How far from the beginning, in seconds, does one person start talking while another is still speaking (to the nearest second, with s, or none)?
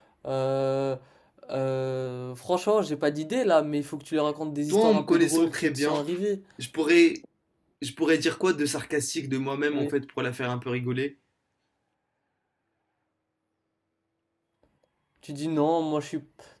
5 s